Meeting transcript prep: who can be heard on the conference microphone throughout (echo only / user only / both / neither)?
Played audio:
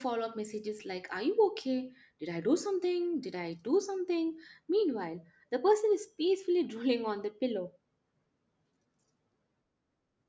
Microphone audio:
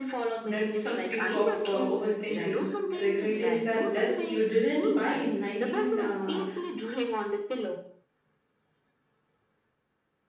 both